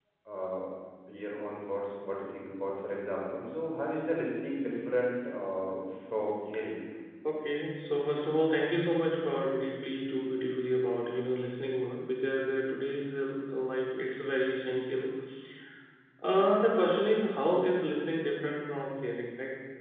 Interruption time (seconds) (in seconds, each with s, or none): none